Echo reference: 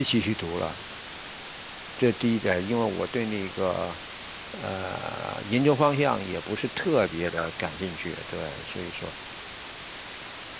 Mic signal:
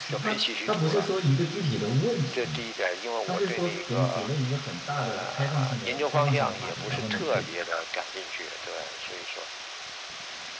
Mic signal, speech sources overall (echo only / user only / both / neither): both